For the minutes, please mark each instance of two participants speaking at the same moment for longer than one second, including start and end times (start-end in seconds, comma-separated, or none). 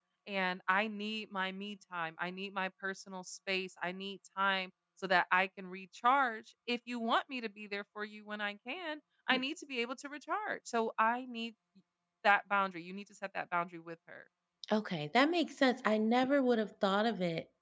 none